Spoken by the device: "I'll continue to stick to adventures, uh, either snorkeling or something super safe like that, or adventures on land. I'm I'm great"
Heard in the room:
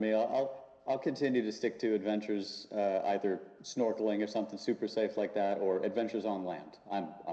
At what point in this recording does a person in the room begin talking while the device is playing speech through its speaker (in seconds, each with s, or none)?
none